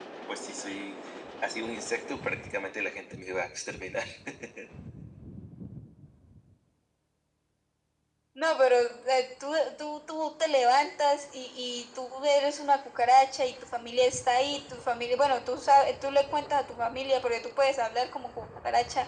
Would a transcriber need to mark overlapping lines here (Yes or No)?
No